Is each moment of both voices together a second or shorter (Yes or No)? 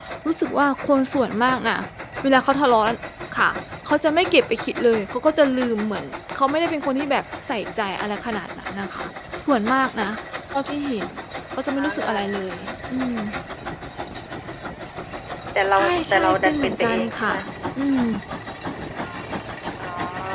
No